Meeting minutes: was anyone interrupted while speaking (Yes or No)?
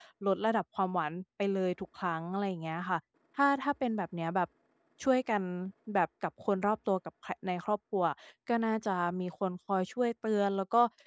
No